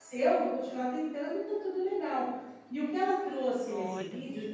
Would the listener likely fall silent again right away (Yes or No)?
Yes